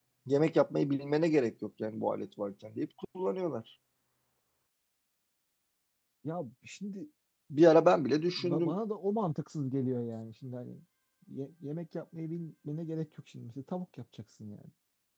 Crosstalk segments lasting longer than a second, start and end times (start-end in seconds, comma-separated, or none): none